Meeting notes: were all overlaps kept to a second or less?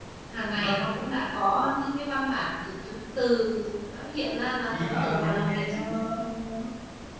No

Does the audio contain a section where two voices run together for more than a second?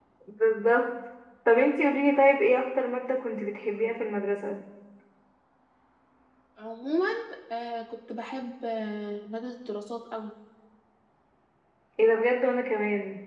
No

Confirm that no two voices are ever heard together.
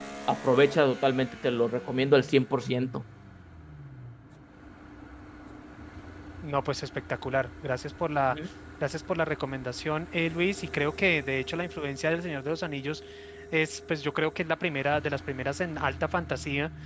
Yes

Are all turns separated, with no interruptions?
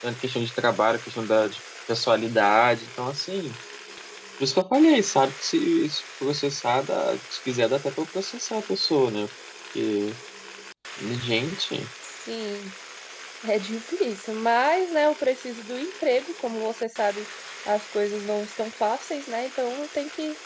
Yes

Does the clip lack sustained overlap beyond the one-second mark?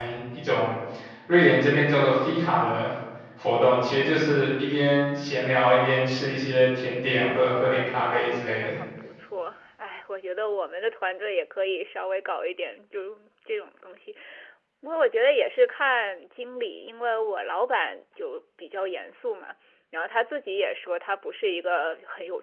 No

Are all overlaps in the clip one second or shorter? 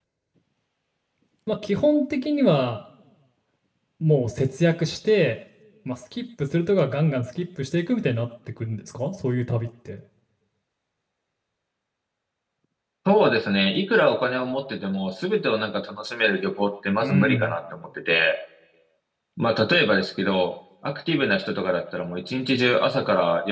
Yes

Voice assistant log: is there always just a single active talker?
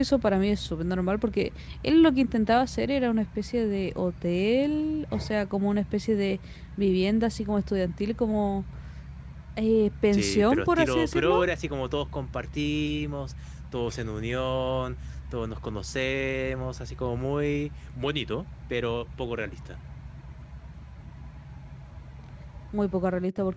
No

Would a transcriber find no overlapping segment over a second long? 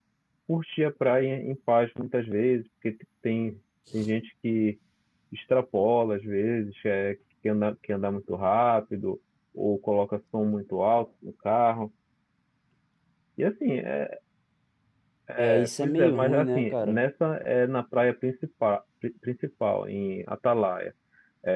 No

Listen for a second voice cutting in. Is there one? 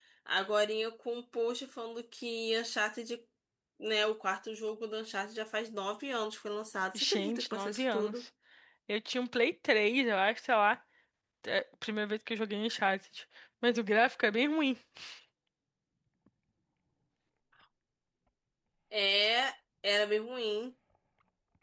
Yes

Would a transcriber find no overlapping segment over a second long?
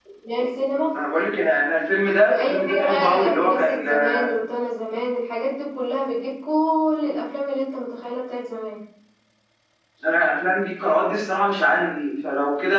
No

